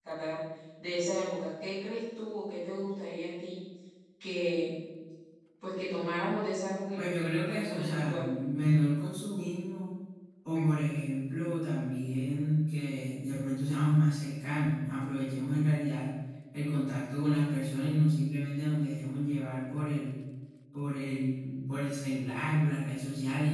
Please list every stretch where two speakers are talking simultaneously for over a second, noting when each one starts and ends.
7.0-8.2

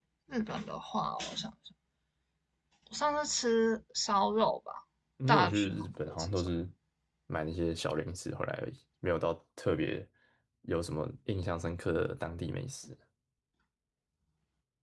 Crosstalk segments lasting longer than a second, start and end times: 5.3-6.5

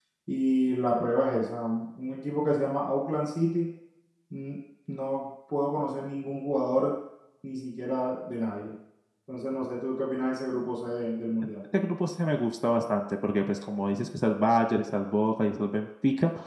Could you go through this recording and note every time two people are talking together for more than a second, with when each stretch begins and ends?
none

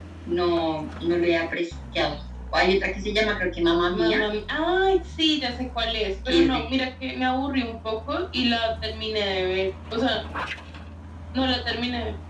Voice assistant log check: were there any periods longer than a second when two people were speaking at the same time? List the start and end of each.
none

